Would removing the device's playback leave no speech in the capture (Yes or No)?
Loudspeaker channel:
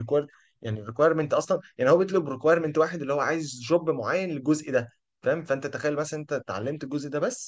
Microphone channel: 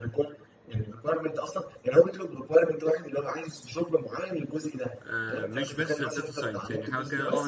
No